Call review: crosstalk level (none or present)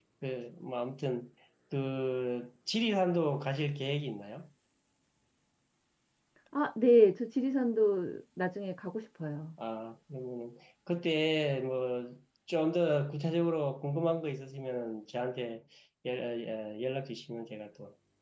none